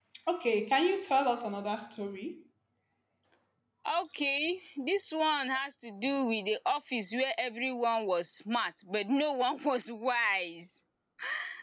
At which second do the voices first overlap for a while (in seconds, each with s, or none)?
none